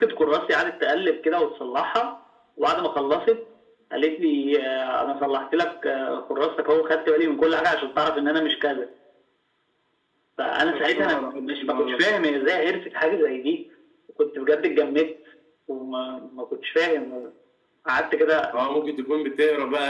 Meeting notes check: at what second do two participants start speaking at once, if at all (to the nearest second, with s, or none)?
11 s